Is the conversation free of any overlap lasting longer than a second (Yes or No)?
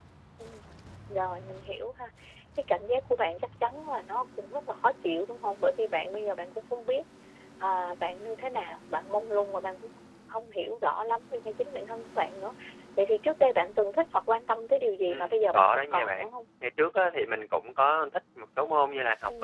No